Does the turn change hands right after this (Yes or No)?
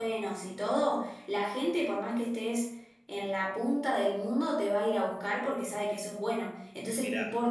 No